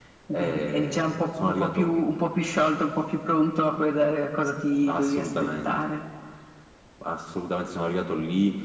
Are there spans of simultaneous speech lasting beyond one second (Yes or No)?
Yes